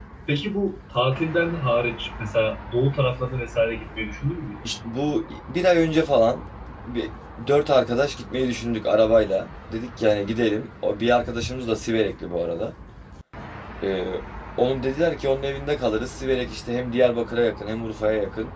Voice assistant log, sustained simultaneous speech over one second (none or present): none